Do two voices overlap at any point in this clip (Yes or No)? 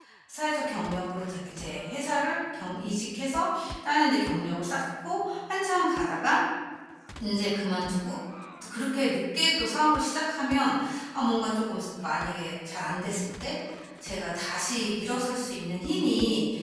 No